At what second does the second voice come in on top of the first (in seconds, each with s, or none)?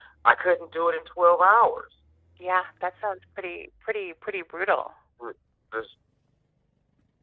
none